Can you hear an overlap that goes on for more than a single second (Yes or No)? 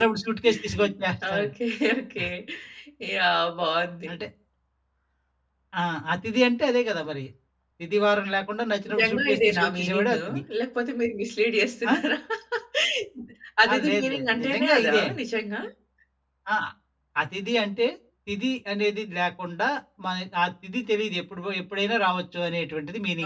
Yes